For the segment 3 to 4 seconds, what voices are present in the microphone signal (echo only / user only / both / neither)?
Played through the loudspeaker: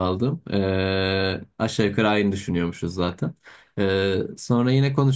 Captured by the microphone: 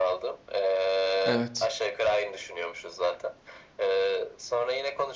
echo only